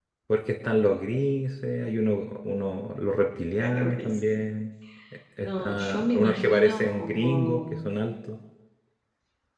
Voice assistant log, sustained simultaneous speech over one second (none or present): present